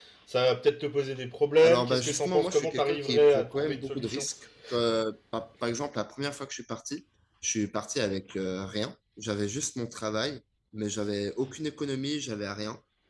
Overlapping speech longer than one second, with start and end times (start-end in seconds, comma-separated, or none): 1.6-4.2